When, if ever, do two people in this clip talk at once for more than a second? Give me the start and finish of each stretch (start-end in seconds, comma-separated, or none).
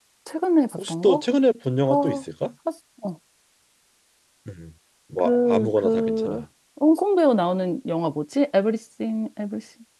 5.2-6.4